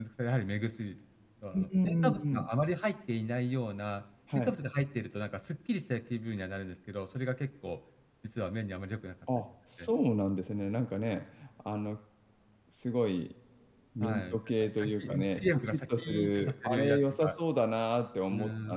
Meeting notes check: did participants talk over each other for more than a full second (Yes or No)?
Yes